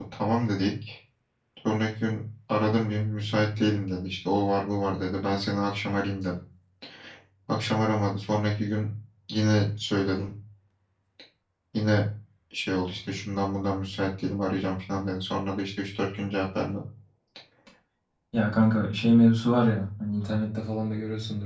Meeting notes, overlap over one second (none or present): none